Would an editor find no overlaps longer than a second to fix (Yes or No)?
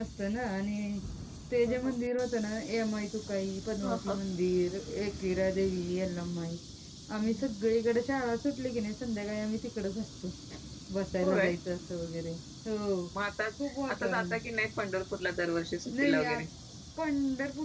Yes